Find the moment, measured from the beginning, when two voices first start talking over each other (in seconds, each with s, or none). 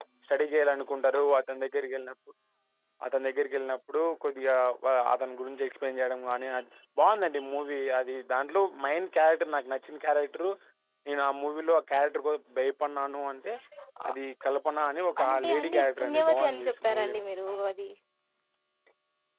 15.2 s